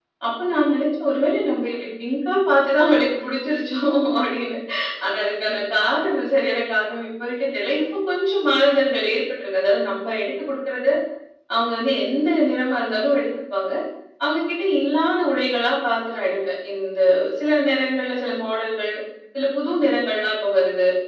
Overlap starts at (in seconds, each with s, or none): none